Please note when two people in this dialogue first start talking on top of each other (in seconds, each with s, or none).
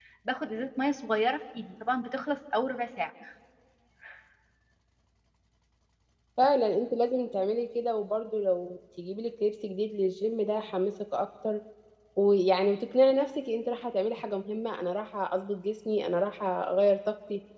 none